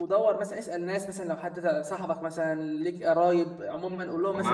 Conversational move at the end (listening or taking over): taking over